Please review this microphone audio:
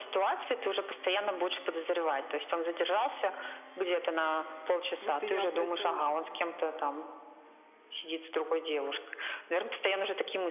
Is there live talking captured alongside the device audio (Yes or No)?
Yes